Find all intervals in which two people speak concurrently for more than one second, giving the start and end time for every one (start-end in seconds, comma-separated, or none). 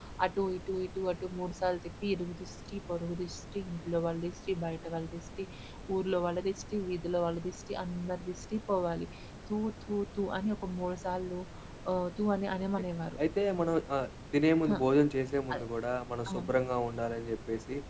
none